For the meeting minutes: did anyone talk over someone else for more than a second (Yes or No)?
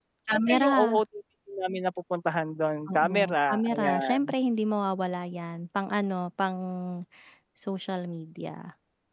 Yes